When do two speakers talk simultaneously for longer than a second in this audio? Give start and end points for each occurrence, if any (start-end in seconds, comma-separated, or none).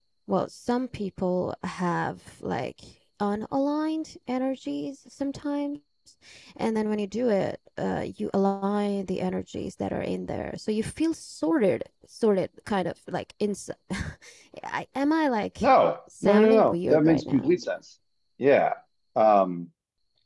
16.2-17.6